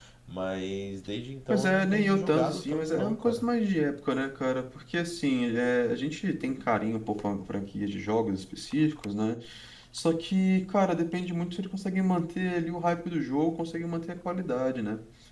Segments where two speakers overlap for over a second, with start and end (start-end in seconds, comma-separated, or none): 1.5-3.5